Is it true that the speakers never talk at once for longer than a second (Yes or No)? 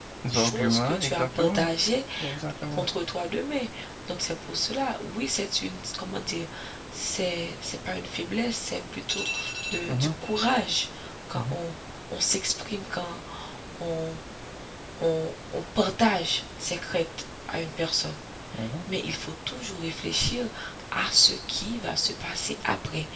No